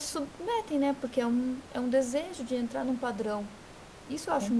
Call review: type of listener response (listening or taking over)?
taking over